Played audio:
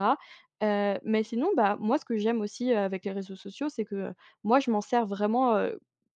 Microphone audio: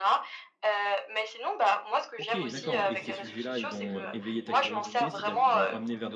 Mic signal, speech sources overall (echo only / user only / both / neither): both